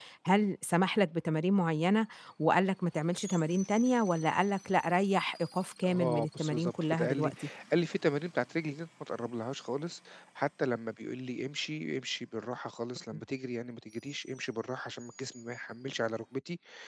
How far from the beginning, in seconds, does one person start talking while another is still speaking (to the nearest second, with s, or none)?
6 s